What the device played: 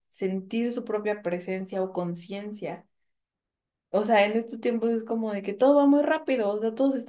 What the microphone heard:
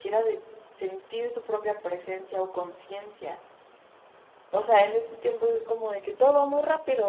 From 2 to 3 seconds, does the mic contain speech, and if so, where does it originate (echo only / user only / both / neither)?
echo only